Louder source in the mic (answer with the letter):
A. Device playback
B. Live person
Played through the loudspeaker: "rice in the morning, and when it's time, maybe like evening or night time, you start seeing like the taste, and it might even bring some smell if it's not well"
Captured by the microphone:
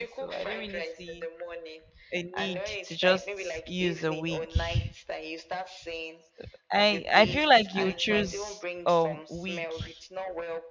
B